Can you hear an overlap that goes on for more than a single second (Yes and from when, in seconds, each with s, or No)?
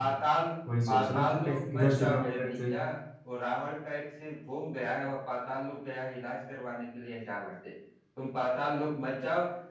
Yes, from 0.9 s